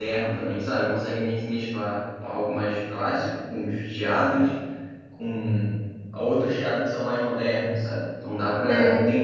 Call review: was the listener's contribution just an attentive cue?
Yes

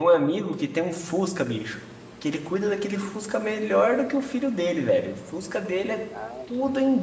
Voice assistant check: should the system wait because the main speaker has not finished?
Yes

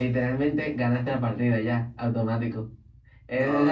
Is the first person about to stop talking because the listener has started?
No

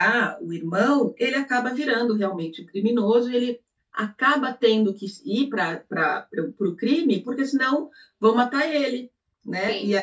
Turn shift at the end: Yes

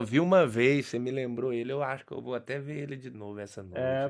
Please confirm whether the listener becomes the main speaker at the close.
Yes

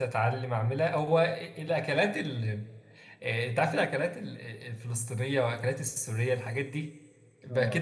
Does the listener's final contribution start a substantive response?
No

